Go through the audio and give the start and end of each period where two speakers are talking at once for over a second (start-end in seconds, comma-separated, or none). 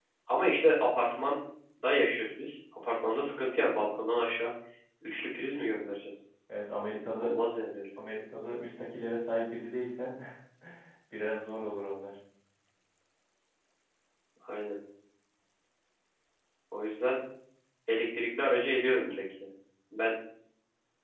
none